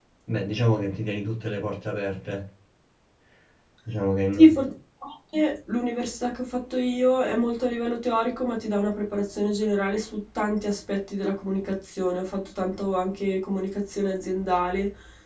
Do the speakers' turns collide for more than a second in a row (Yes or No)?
No